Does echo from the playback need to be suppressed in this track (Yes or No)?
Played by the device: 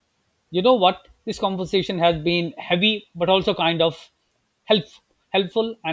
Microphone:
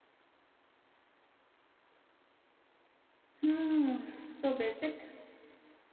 No